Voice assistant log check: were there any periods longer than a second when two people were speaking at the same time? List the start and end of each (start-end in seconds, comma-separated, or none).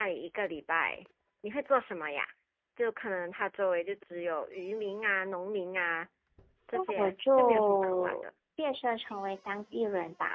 6.7-8.2